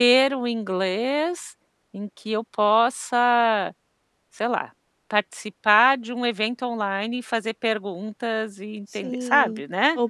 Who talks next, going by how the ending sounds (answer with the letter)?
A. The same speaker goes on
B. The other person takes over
B